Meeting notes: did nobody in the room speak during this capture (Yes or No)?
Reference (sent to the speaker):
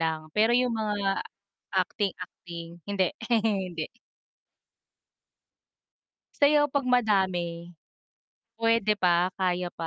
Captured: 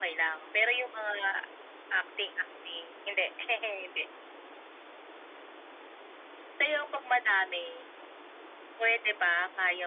Yes